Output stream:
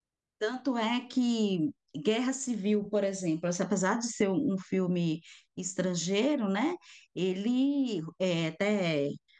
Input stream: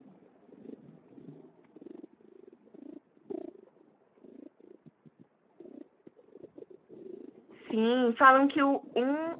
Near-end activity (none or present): present